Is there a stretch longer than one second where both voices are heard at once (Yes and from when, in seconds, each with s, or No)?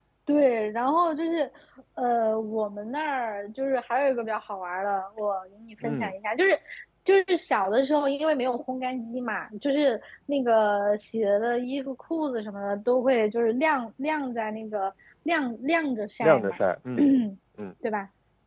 No